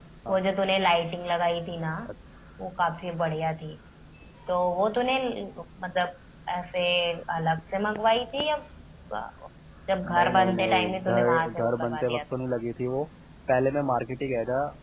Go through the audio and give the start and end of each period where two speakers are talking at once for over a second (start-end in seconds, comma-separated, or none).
10.1-12.2